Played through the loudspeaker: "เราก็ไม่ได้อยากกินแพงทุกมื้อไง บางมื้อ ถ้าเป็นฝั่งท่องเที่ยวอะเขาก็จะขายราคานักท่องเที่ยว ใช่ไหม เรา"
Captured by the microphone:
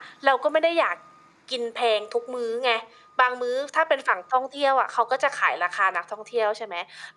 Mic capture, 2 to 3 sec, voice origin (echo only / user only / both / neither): echo only